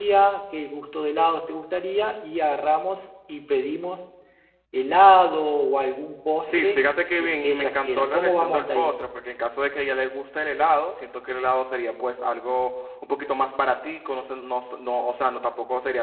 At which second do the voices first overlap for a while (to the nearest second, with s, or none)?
6 s